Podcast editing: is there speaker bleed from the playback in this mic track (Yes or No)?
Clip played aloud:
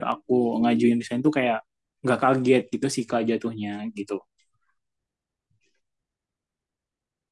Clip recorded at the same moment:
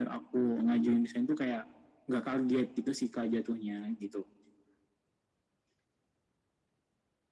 Yes